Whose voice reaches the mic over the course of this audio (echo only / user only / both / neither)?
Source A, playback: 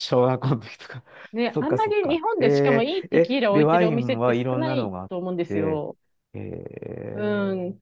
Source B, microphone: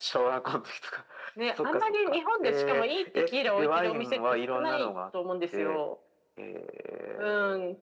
echo only